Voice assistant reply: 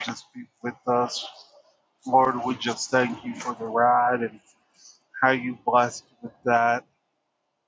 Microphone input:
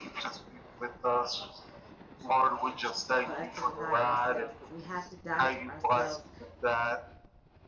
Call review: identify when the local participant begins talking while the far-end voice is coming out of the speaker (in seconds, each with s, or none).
3.2 s